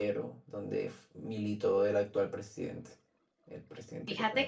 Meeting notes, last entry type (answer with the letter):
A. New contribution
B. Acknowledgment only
A